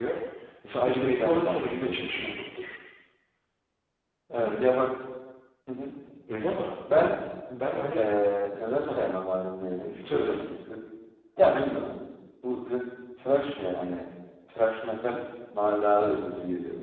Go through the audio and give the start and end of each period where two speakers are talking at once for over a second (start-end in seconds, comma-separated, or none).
0.8-2.3